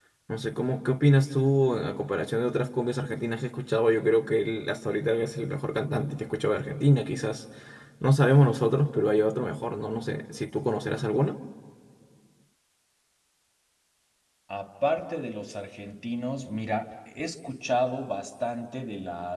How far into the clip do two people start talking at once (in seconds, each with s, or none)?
none